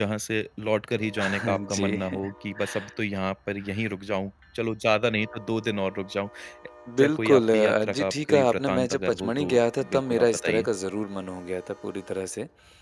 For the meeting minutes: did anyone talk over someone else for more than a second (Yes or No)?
Yes